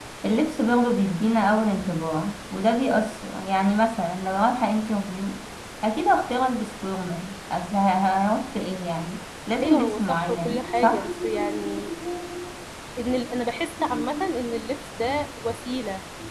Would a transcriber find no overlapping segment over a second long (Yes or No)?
No